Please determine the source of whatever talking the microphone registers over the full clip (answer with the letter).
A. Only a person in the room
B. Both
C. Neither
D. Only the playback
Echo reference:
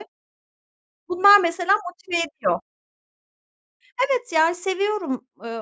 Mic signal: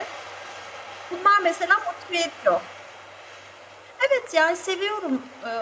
D